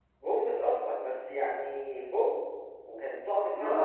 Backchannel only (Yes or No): No